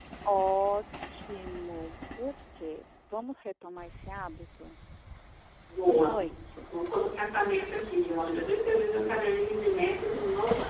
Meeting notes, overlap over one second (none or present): none